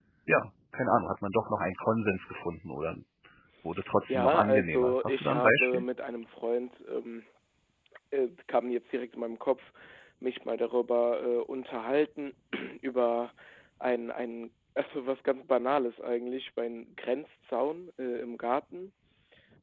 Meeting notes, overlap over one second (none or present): present